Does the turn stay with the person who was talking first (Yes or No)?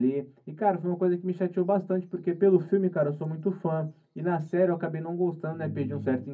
Yes